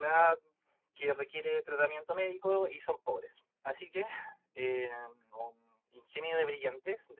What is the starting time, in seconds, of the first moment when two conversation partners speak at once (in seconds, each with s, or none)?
none